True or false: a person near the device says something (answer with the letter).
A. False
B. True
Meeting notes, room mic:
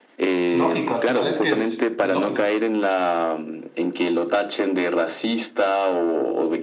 B